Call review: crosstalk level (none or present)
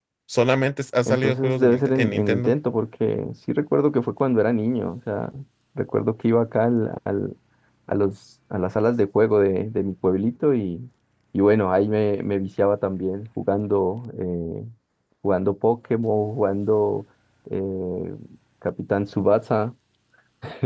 present